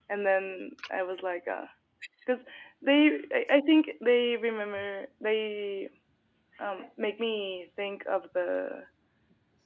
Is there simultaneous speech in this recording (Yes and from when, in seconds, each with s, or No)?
No